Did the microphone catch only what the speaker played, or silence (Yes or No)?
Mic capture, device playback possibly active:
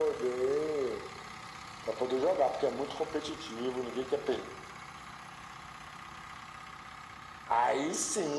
Yes